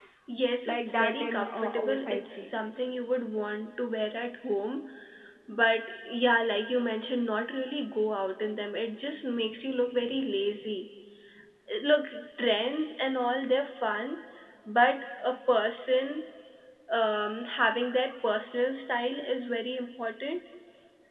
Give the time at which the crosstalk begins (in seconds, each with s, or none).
0.7 s